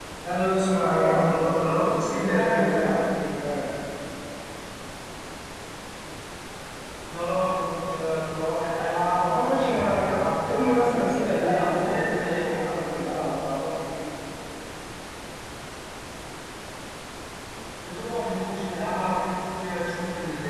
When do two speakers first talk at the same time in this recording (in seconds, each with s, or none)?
0.8 s